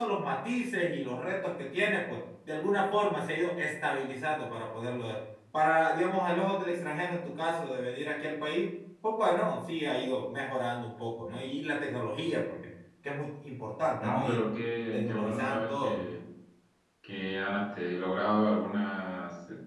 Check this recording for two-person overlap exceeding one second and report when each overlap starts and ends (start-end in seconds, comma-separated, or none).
14.9-16.1